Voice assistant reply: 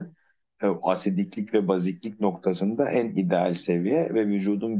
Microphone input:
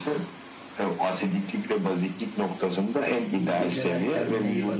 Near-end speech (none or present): present